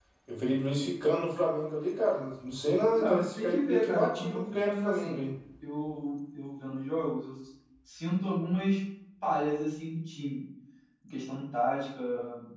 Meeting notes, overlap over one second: present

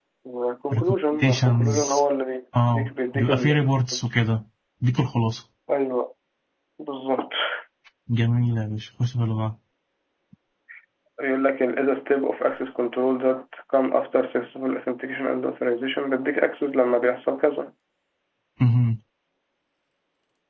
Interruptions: present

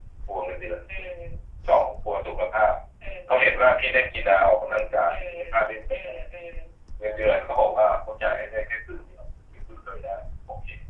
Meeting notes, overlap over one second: none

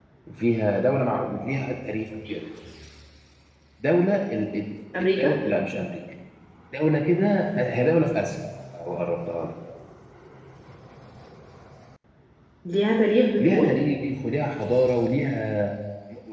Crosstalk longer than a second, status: none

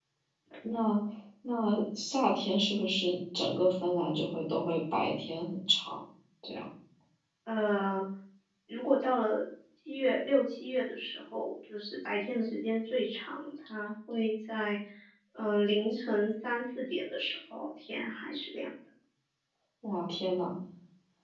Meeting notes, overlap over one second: none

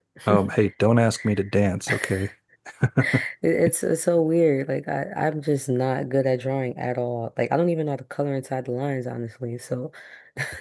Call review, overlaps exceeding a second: none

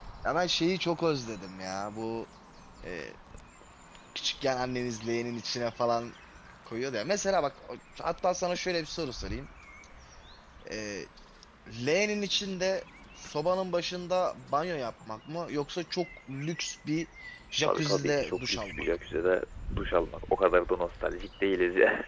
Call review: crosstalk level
present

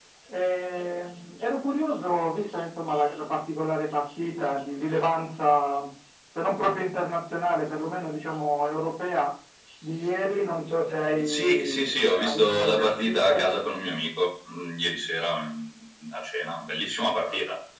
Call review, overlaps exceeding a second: present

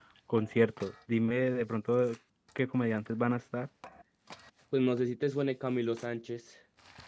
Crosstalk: none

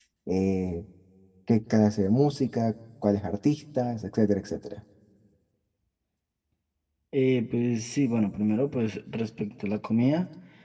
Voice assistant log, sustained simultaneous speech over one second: none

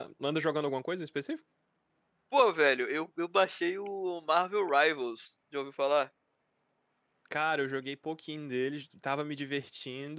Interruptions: none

